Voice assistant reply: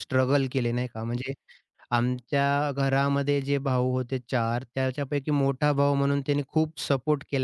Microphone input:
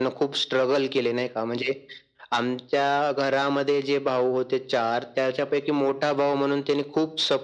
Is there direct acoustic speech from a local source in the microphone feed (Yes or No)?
No